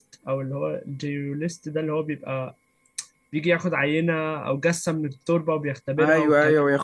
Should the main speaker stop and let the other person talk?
Yes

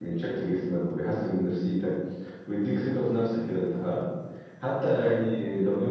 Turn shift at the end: No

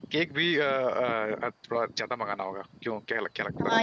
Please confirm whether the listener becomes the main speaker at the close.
Yes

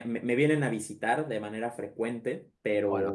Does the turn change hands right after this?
Yes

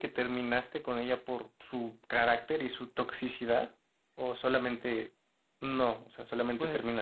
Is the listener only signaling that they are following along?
No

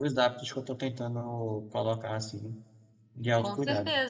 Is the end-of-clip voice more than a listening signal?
Yes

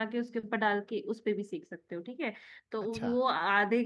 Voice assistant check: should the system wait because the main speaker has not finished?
Yes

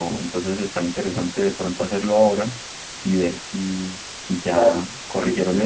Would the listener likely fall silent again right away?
No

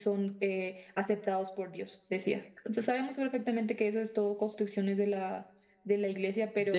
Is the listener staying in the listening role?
No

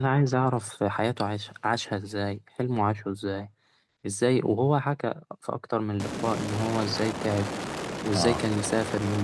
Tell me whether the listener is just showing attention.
Yes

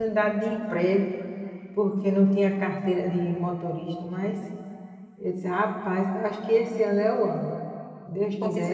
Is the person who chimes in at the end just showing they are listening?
No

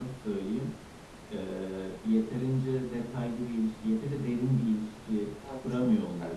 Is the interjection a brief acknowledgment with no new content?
No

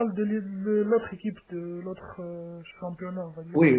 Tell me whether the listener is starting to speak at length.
Yes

